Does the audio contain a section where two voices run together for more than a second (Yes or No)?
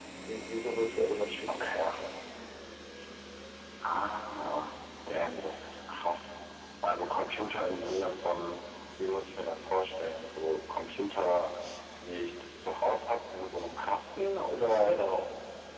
No